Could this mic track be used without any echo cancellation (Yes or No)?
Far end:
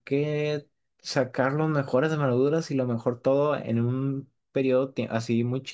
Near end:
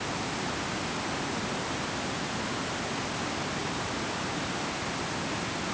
Yes